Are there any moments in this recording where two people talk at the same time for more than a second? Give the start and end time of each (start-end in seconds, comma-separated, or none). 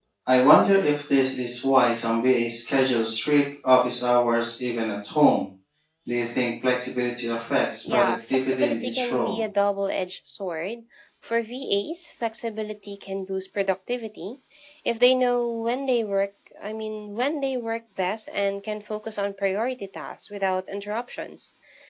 7.8-9.4